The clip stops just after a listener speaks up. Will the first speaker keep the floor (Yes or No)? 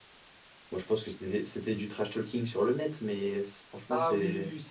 No